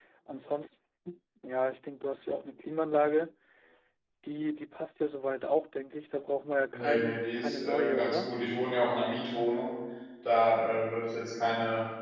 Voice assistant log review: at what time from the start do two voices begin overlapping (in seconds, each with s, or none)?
6.7 s